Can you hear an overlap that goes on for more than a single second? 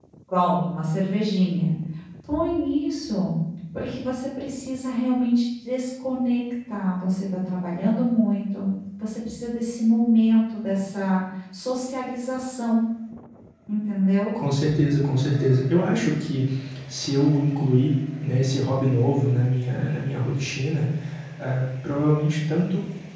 No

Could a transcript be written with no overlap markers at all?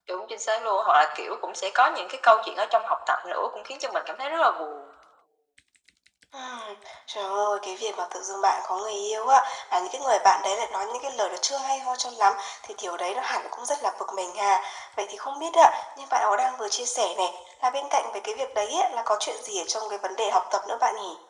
Yes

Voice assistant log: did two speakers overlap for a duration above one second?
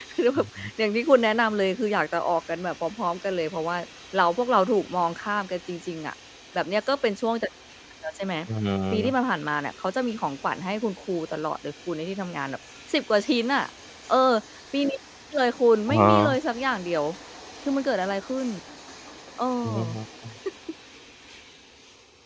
No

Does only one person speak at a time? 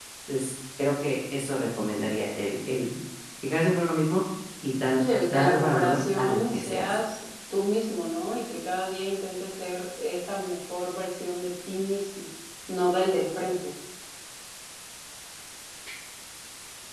No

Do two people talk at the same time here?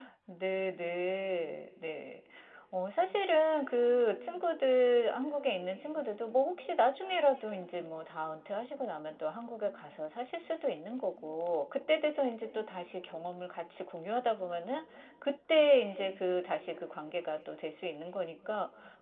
No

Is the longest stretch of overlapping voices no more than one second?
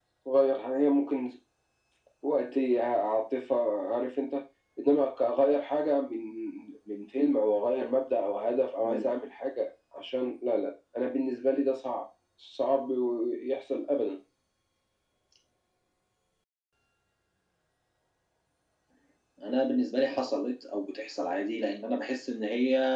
Yes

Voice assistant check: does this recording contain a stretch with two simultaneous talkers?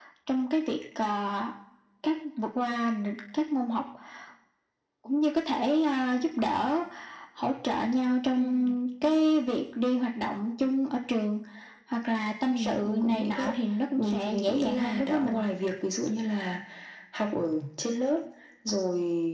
Yes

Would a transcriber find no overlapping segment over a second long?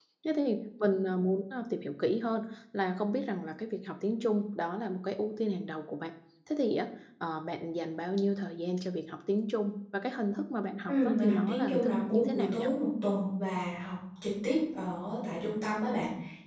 No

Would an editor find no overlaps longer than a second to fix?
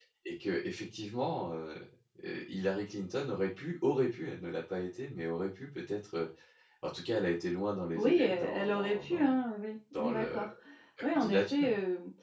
No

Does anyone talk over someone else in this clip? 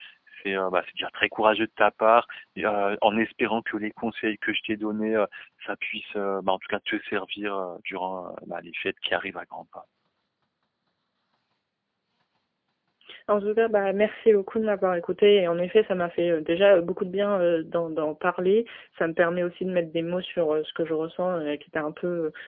No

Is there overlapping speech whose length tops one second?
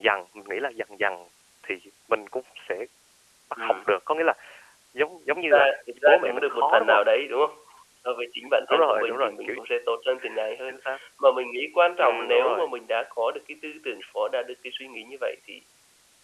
Yes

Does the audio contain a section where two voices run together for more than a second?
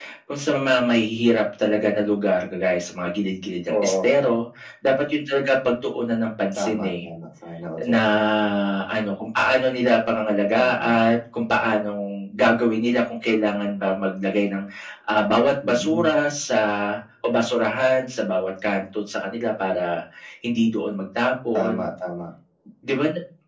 No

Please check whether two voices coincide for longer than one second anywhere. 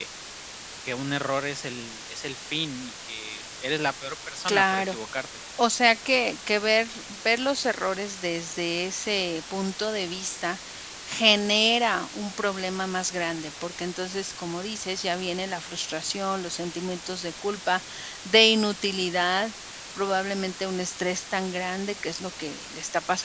No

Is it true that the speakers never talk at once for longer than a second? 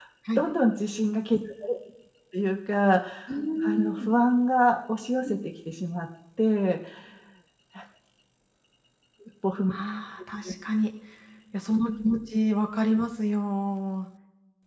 Yes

